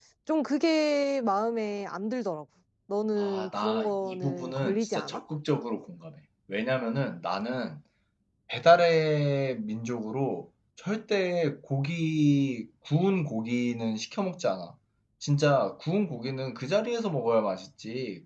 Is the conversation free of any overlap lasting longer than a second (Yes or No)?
No